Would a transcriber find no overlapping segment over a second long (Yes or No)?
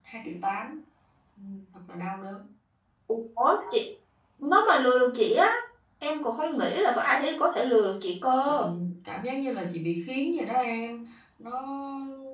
Yes